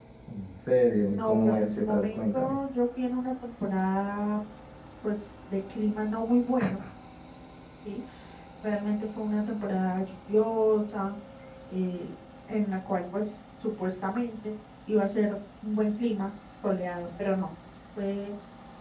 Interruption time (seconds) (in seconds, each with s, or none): 1.1 s